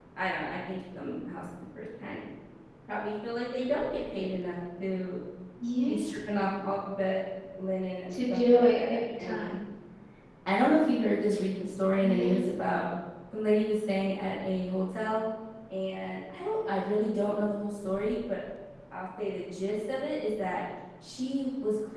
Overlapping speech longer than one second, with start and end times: 8.1-9.5

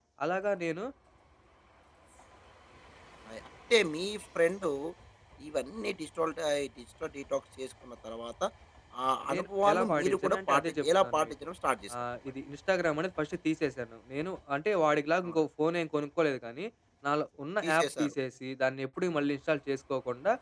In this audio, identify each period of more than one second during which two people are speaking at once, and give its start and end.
9.3-11.3

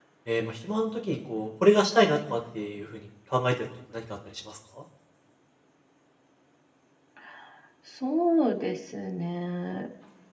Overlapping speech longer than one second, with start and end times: none

